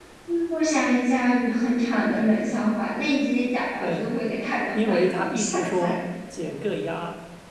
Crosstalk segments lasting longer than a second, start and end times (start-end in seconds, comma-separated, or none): 4.7-6.0